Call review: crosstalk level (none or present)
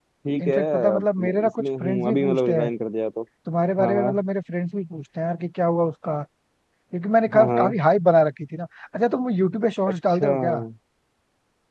present